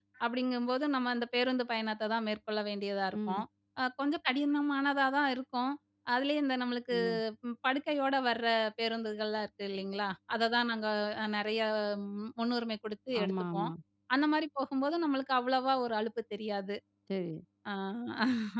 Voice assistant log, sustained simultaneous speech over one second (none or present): none